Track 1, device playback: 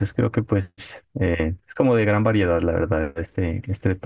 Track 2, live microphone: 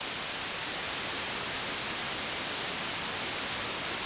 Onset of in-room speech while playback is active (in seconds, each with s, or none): none